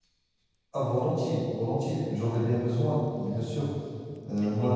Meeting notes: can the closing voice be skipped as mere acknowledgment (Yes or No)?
Yes